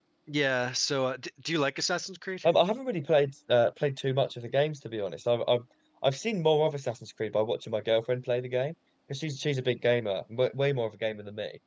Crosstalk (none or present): none